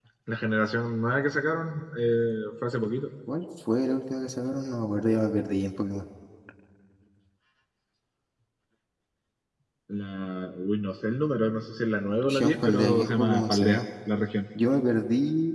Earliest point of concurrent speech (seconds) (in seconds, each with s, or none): 12.2 s